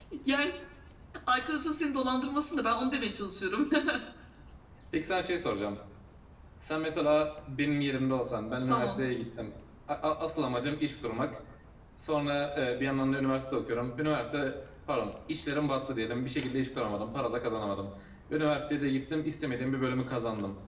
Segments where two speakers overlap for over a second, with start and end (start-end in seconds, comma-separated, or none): none